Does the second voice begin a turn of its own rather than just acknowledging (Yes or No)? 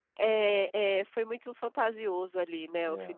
Yes